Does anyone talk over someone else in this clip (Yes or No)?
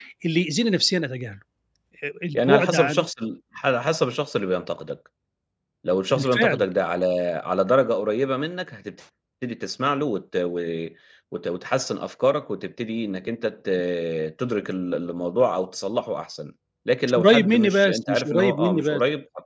Yes